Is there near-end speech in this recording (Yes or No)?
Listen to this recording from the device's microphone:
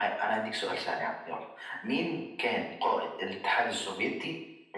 No